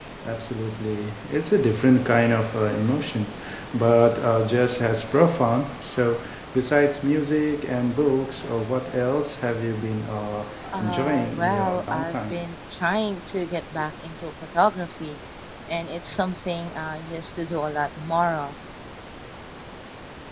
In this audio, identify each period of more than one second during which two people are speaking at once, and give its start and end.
10.8-12.4

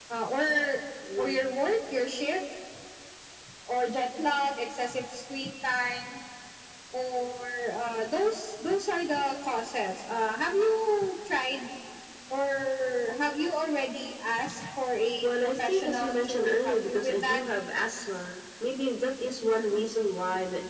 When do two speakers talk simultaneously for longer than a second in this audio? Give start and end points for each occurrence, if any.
15.2-17.4

